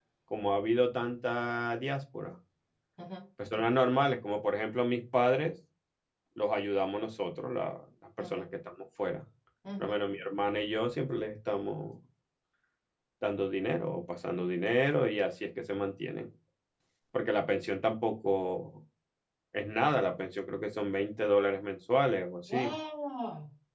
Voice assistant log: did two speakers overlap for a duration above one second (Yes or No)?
No